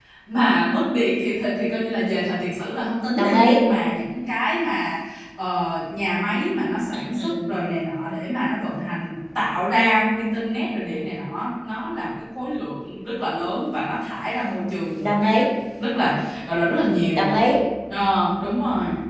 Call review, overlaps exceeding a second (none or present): none